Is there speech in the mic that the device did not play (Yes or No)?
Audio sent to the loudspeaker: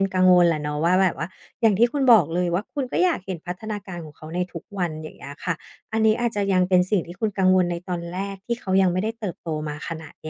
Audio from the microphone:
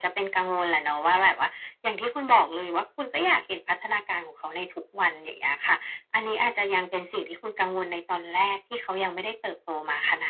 No